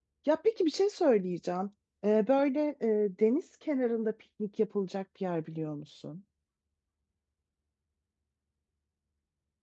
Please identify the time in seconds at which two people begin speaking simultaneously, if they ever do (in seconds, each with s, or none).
none